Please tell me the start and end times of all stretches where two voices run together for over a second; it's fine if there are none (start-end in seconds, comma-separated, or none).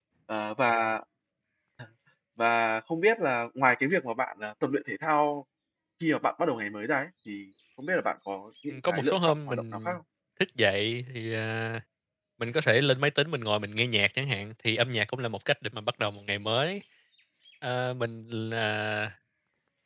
8.7-9.9